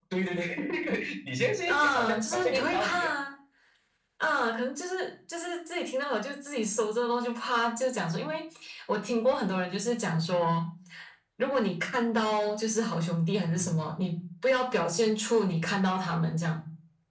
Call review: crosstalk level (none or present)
present